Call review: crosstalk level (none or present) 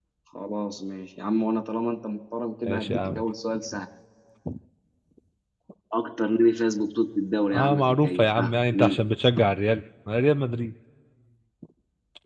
present